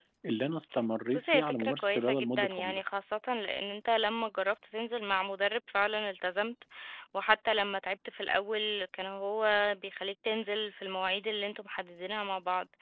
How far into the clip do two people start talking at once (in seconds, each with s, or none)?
1.1 s